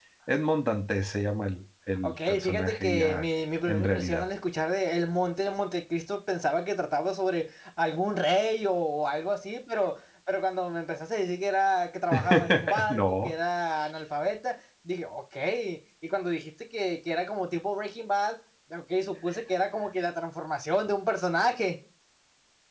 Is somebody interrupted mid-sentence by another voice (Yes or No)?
Yes